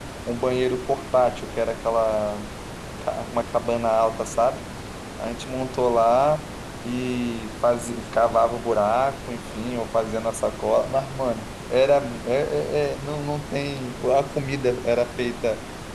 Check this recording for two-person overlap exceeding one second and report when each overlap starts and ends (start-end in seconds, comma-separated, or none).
none